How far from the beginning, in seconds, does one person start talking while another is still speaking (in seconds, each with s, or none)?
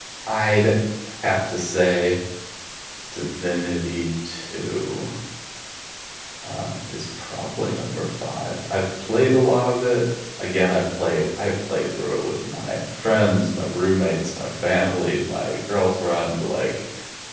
none